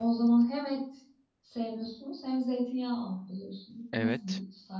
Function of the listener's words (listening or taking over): taking over